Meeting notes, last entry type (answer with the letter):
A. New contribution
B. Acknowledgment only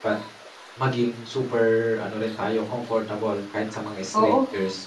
A